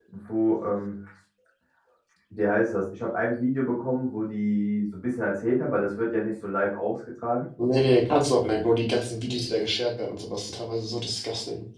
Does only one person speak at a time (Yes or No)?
Yes